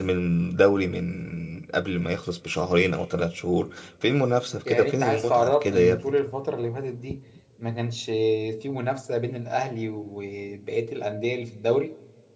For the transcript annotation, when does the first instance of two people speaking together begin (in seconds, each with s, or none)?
4.7 s